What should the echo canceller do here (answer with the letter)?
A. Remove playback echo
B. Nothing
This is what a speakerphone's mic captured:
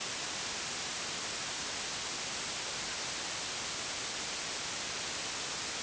B